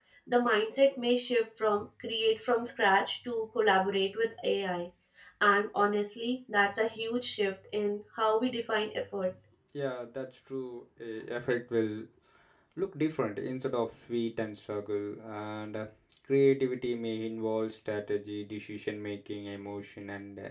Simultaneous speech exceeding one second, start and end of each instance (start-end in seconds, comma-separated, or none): none